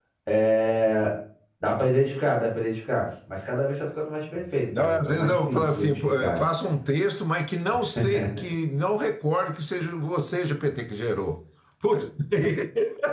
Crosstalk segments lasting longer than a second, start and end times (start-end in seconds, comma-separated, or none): 4.8-6.4